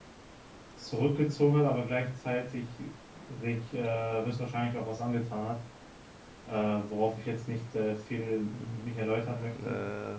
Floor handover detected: No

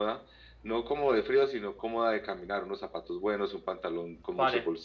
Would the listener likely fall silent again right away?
Yes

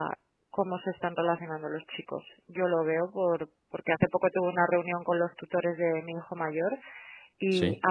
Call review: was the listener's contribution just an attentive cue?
Yes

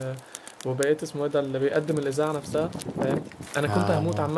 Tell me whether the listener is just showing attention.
Yes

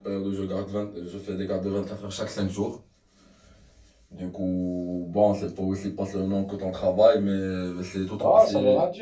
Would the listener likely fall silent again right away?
No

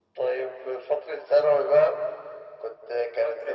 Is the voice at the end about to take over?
Yes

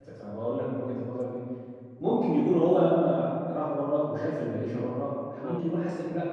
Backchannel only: Yes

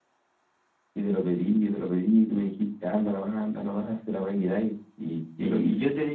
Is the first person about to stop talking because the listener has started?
Yes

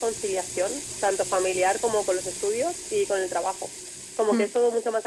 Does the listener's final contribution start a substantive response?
No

